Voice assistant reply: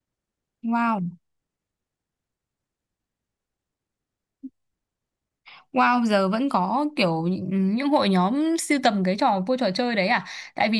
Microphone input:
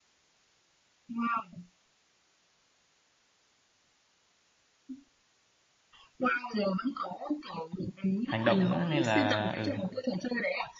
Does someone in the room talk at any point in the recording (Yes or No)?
Yes